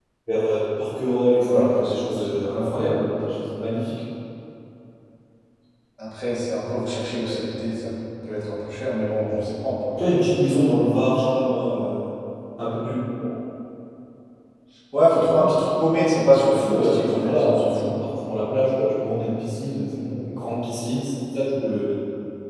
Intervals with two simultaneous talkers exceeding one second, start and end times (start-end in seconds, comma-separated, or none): 1.4-2.9, 16.3-18.1